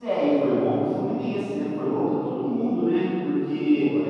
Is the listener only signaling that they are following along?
Yes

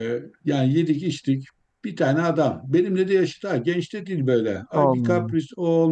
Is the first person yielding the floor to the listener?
No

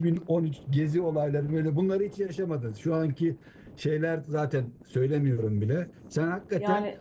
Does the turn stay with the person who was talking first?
Yes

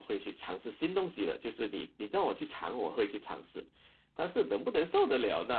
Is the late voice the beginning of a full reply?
No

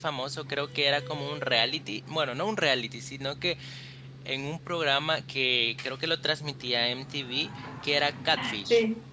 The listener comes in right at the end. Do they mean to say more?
Yes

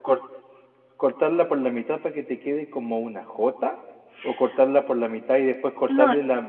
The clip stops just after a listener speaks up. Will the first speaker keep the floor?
Yes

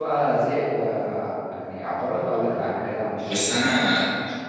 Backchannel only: No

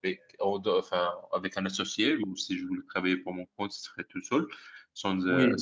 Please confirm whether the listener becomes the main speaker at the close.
No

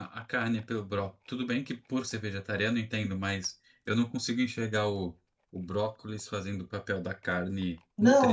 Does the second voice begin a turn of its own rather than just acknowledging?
Yes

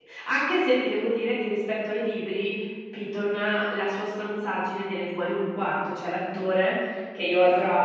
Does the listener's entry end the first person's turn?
No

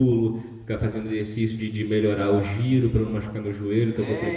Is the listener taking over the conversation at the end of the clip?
Yes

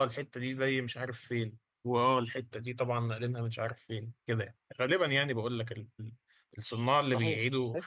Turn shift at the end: Yes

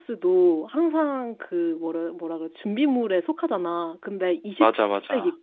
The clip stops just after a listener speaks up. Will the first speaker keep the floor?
Yes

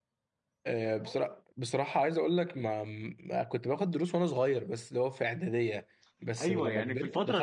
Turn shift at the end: Yes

